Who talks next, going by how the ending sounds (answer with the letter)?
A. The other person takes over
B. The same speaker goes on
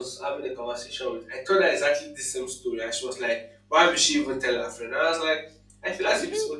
B